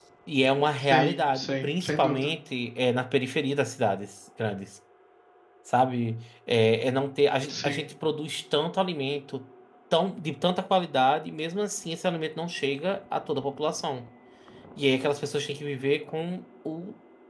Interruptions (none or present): present